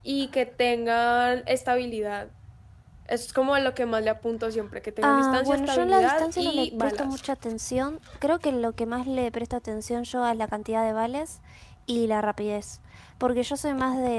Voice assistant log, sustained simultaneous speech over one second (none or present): present